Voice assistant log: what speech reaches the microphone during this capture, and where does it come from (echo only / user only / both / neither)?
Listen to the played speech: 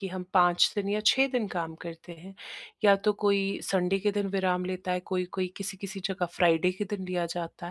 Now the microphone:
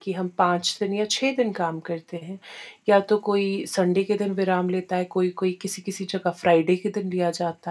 echo only